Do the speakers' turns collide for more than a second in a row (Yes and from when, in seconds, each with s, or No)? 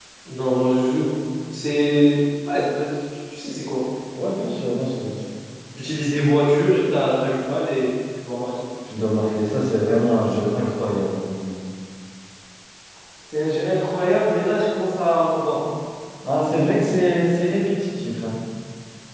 No